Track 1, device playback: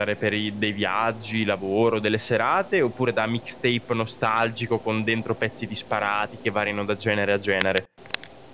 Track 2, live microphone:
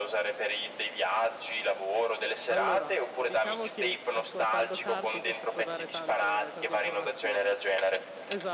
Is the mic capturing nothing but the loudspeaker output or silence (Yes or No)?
No